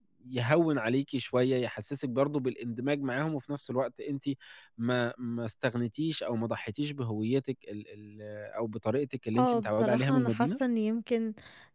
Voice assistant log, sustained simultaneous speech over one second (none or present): present